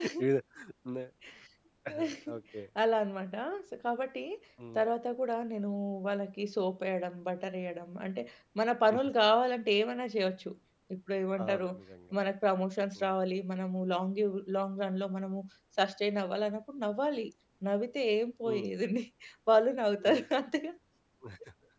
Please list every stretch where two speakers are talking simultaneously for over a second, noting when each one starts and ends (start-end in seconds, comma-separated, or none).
none